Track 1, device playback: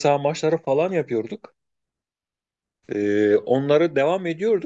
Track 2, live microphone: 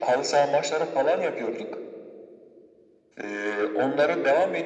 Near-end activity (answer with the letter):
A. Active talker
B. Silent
B